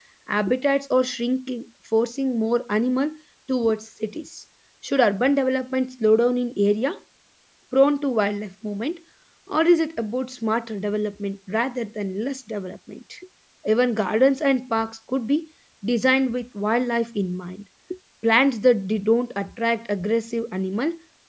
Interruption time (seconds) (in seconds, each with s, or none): none